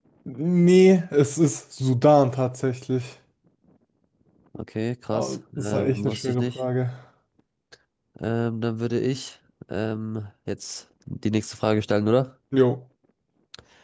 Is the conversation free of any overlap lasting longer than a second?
No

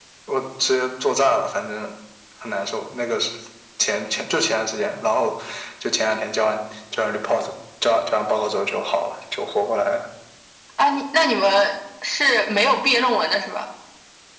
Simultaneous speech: No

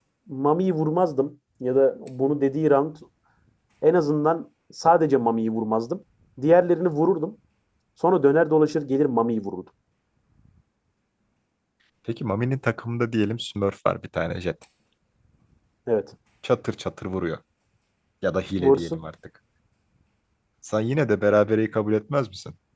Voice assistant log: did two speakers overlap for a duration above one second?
No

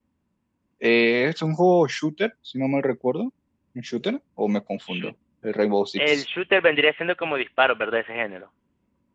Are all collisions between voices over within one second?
Yes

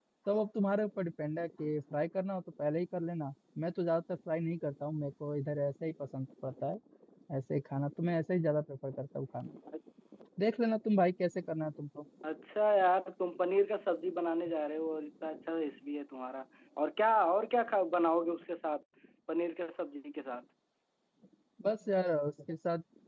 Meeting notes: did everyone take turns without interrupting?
Yes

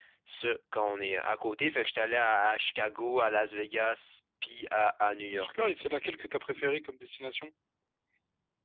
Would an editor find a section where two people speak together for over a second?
No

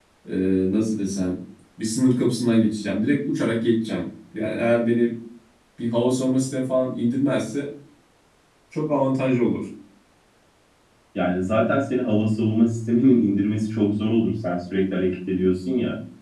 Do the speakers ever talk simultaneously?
No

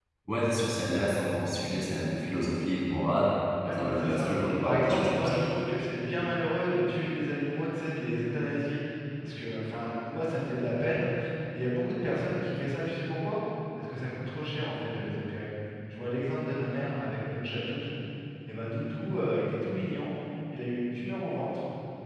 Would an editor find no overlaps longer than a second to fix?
No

